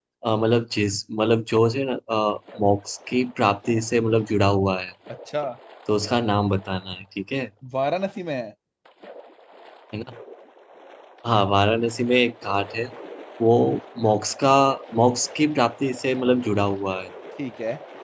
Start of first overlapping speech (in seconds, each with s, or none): none